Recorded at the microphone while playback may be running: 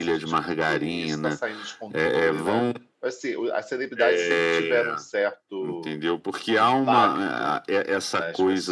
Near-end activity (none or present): present